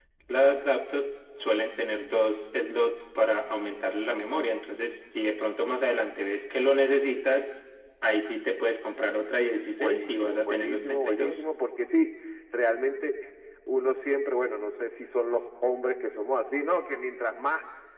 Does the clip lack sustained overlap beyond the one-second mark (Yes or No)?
No